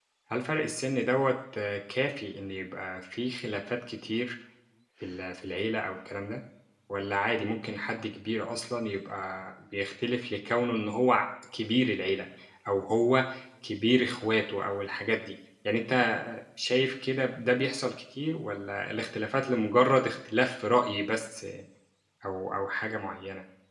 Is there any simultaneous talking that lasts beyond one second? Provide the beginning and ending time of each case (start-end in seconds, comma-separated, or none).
none